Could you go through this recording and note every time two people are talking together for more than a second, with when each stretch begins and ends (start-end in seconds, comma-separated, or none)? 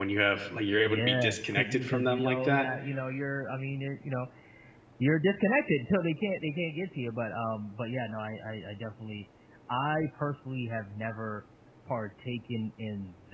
0.8-2.7